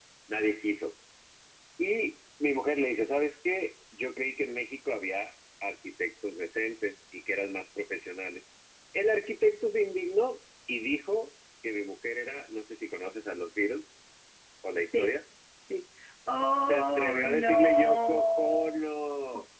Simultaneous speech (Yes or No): Yes